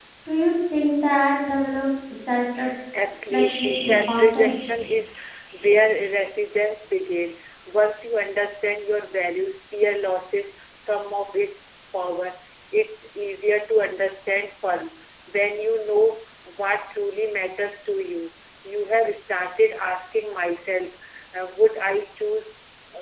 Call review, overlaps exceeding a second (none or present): present